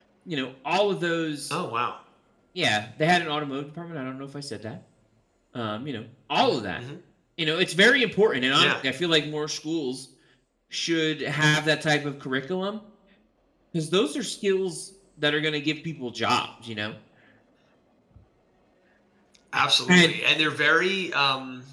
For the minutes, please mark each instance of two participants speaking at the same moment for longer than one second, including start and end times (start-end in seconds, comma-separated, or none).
none